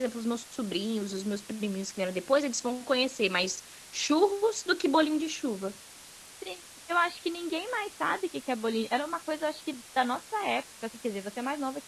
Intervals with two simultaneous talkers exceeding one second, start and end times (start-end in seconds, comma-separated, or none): none